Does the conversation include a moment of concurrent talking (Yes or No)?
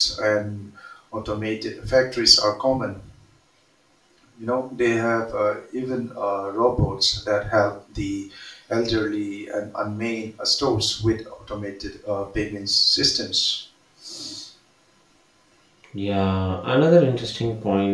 No